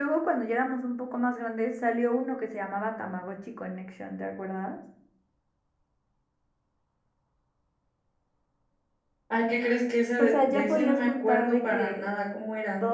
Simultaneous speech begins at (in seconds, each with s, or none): 10.2 s